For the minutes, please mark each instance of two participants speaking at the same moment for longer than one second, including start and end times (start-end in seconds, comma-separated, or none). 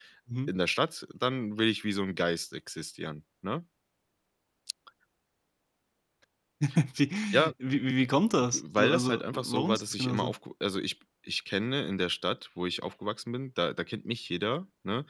8.4-10.3